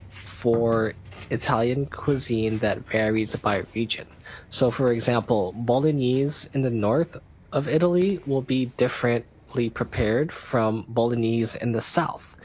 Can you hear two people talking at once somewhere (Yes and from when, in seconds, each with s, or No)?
No